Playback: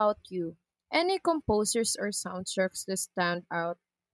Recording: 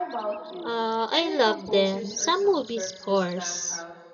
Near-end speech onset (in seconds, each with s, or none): 0.6 s